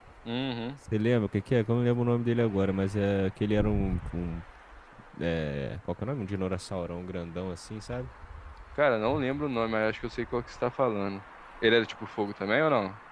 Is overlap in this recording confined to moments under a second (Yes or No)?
Yes